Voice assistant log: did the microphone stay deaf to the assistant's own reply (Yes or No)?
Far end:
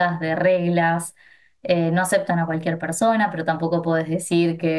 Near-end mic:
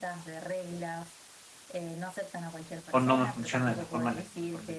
No